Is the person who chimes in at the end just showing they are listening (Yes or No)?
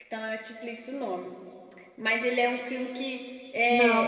Yes